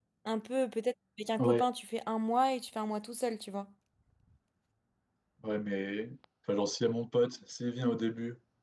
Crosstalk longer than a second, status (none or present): none